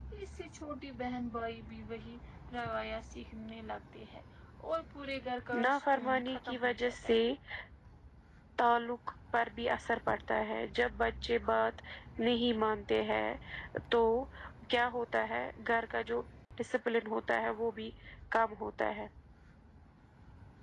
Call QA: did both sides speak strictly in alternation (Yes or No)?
No